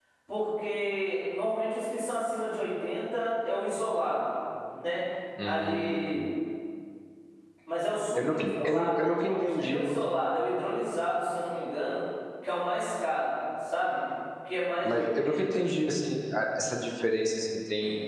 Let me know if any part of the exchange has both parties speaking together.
Yes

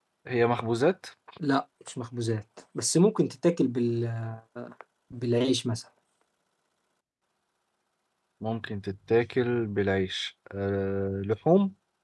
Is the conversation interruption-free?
Yes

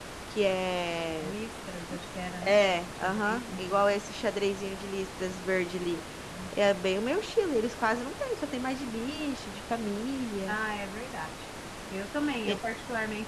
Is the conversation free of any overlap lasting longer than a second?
No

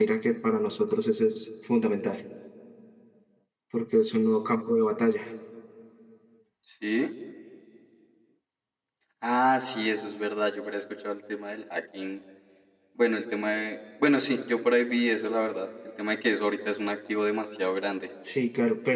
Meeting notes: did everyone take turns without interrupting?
Yes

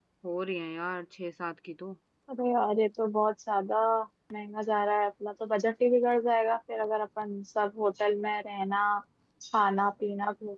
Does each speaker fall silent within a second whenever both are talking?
Yes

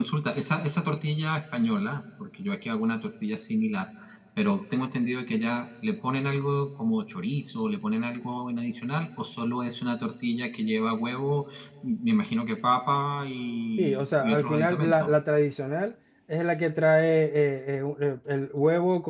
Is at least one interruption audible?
Yes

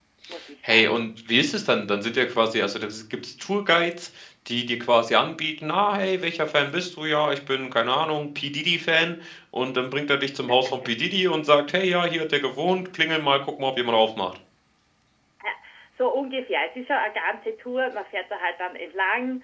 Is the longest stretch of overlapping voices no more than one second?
Yes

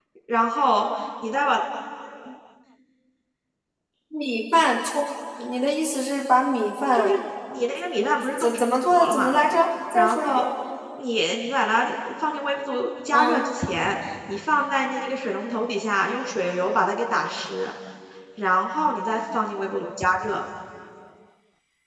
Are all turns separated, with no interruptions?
No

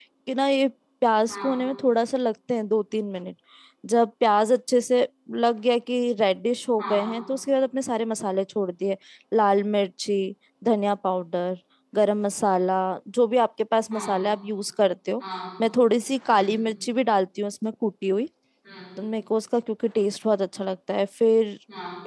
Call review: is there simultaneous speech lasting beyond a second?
No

